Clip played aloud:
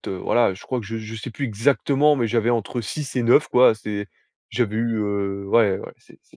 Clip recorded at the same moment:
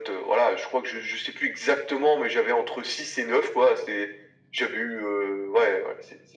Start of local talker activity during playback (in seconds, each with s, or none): none